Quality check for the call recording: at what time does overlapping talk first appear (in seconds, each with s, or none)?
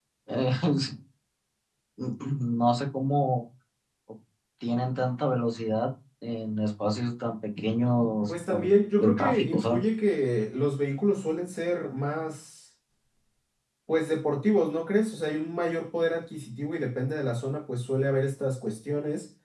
8.3 s